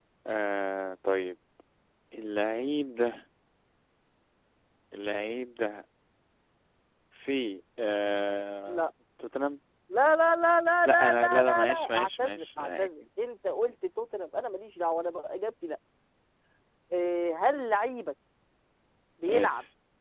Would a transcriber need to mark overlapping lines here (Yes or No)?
Yes